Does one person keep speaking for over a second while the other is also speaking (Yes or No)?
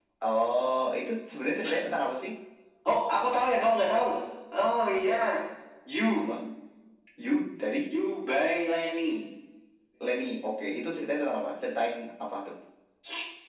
No